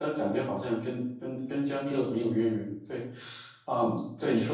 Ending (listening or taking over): listening